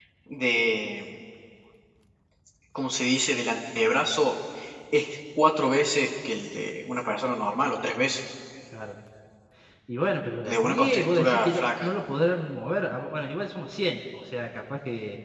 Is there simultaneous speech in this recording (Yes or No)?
Yes